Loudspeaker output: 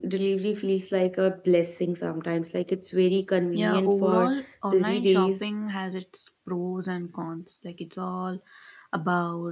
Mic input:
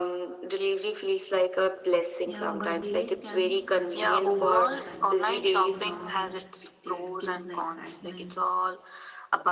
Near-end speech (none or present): present